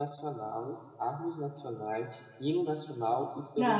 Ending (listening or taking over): taking over